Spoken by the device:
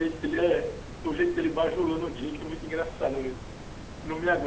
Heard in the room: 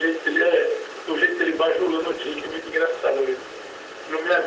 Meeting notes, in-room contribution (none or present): none